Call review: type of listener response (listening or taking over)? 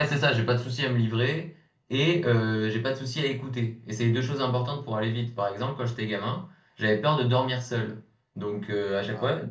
listening